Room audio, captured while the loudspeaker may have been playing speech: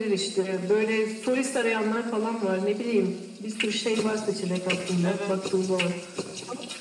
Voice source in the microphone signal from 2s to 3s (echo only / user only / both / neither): echo only